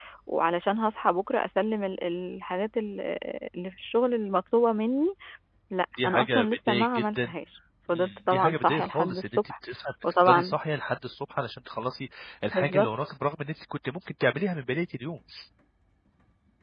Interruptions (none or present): present